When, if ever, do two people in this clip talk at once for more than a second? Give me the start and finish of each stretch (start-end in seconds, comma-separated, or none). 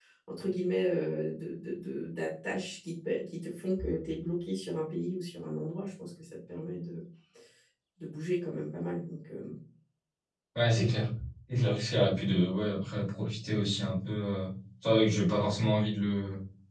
none